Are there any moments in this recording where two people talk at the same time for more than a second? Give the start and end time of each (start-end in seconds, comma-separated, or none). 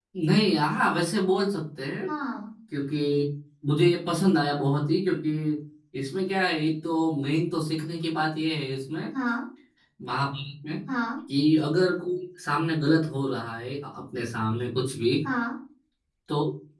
none